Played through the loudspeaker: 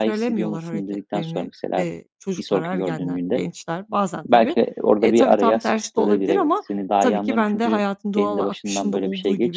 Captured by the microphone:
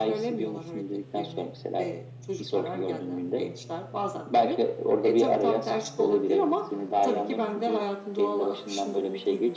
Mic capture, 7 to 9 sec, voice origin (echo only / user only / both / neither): echo only